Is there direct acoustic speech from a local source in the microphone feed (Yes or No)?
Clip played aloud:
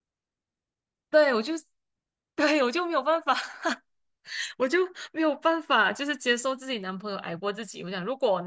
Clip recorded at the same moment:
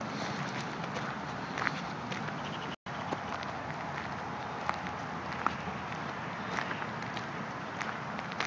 No